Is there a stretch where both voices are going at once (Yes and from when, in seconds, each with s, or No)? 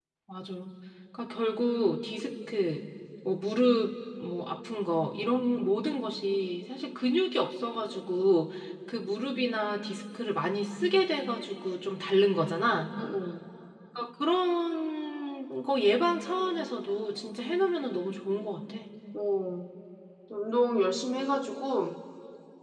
No